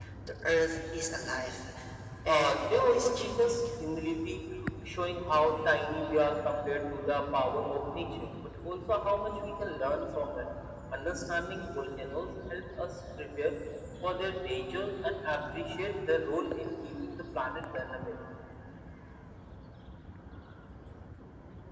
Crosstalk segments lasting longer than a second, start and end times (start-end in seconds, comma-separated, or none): 2.3-3.5